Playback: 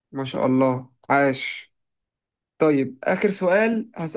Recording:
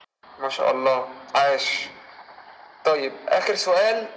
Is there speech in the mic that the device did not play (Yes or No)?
No